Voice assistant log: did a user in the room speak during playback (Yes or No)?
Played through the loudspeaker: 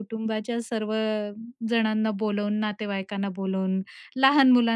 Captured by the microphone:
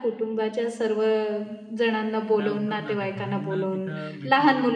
Yes